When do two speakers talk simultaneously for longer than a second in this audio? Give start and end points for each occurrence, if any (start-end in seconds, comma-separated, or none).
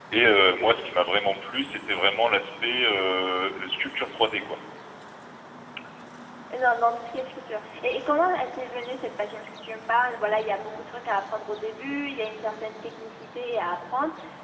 none